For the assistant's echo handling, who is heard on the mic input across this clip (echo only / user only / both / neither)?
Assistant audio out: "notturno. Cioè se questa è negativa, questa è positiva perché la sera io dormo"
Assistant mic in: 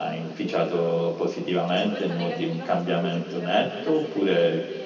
both